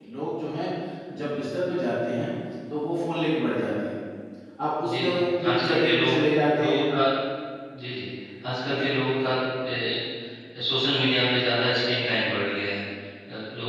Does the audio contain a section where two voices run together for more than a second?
Yes, from 4.9 s

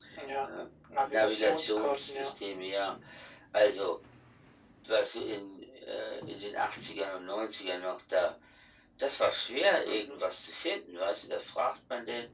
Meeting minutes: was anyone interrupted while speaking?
Yes, from 1.1 s

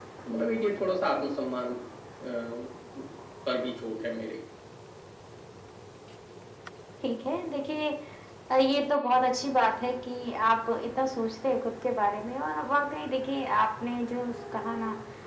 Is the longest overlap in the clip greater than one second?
No

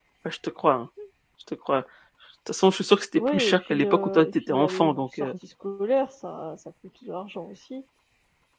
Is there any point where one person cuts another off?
Yes, from 3.2 s

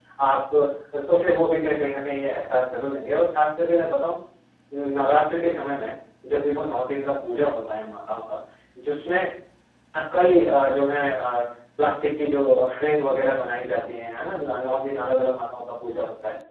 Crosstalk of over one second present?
No

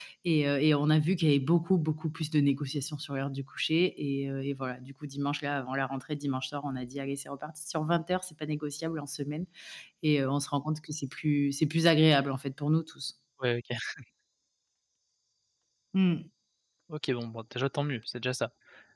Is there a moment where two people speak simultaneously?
No

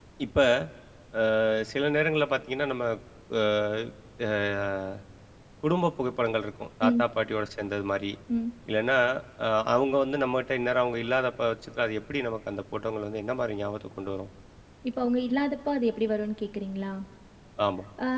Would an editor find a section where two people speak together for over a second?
No

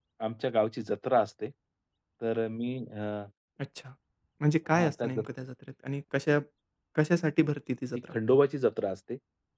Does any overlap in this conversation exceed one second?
No

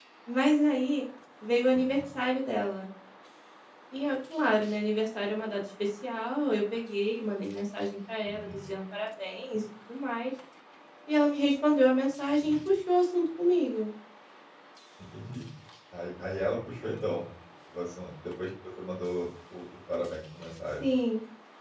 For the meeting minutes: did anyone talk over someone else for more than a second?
No

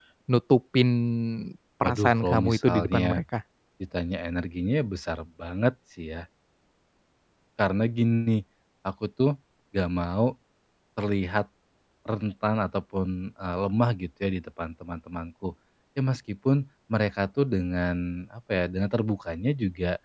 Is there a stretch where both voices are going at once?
Yes, from 1.8 s

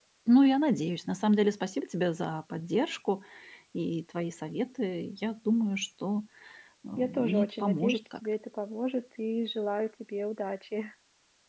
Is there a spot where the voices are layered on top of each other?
Yes, from 7.0 s

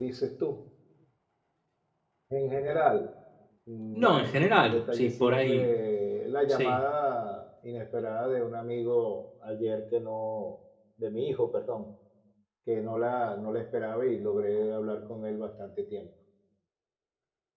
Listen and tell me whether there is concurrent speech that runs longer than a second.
Yes, from 3.9 s

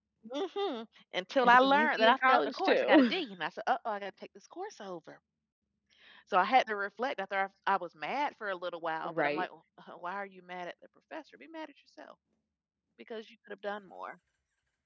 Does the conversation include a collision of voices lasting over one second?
Yes, from 1.4 s

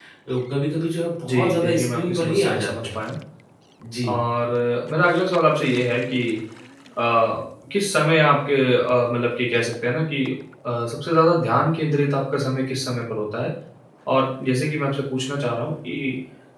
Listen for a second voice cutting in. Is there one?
Yes, from 1.3 s

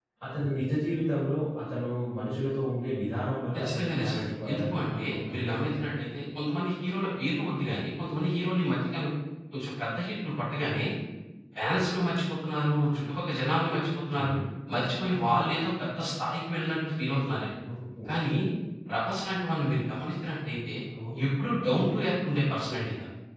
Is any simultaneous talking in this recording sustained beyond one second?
Yes, from 3.6 s

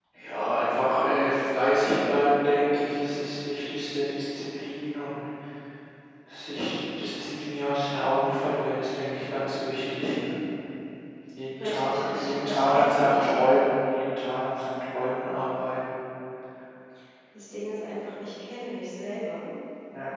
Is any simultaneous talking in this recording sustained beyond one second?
Yes, from 11.6 s

